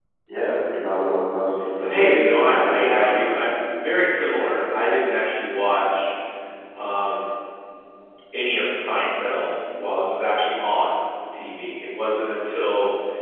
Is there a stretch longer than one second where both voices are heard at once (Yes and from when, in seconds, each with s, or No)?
Yes, from 1.8 s